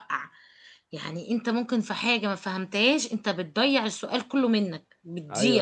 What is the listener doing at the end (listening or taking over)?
taking over